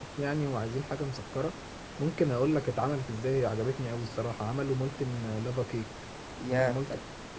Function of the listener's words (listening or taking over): taking over